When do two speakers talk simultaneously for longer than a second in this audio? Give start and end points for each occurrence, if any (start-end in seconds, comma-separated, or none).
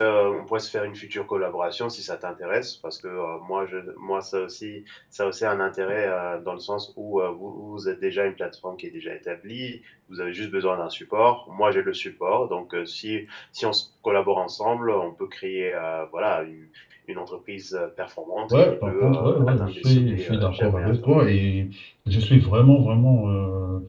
18.5-20.9